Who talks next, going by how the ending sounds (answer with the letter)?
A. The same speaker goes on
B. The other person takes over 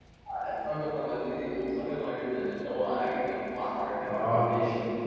B